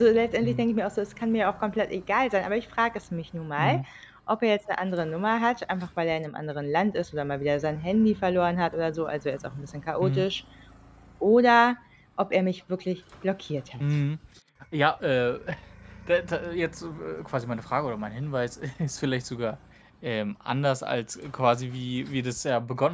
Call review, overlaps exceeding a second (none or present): none